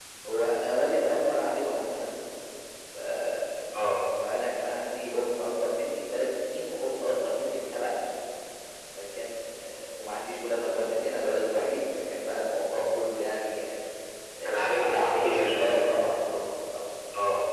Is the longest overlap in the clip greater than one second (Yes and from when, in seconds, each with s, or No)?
Yes, from 14.4 s